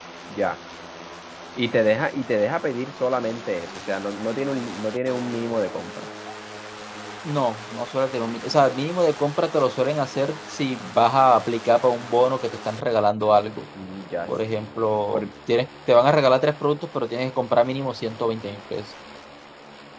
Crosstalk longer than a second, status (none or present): none